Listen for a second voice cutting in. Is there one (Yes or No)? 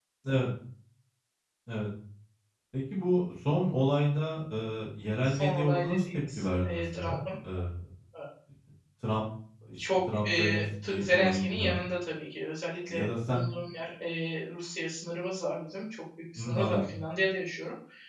Yes